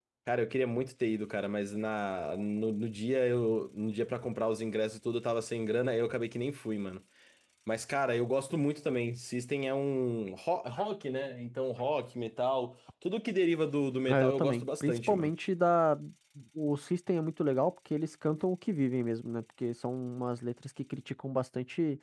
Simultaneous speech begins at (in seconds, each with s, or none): 14.1 s